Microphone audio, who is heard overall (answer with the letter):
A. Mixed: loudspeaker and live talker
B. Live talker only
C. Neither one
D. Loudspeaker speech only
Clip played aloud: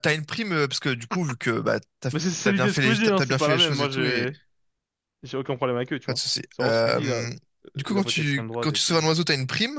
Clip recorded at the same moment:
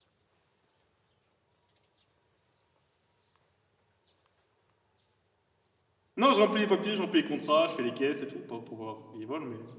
B